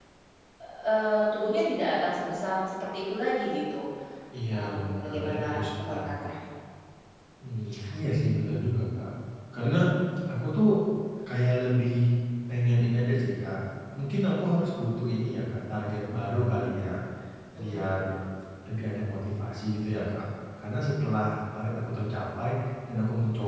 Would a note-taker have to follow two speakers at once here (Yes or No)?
Yes